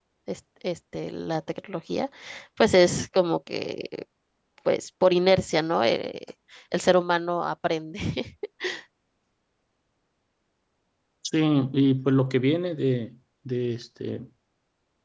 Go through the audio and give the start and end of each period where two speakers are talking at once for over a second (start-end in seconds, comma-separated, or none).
none